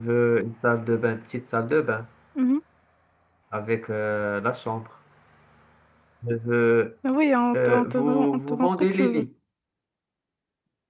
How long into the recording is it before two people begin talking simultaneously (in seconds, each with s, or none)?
7.7 s